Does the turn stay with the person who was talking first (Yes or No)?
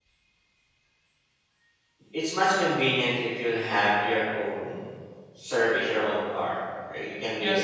No